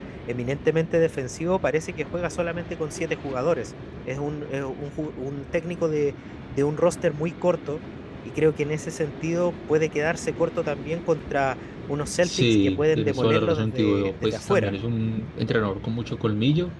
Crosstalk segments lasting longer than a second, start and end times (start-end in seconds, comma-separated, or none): 12.2-14.7